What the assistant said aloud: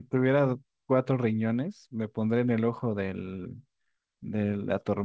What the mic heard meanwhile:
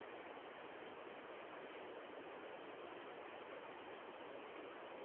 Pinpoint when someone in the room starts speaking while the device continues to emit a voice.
none

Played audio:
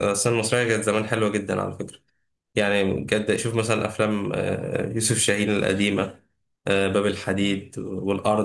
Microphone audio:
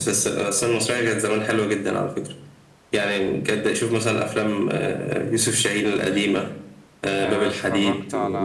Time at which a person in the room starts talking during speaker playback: 7.2 s

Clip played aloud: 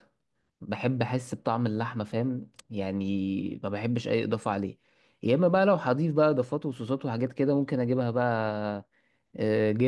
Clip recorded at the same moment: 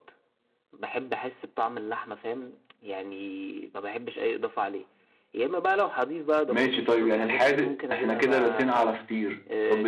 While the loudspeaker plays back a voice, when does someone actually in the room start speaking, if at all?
6.5 s

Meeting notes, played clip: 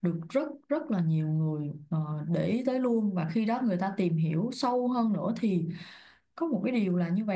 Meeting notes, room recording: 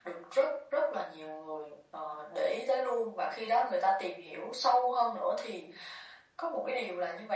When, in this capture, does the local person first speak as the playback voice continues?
none

